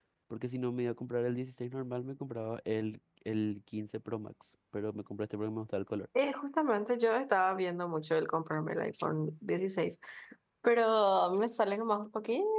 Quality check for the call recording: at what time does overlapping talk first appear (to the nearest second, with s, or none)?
none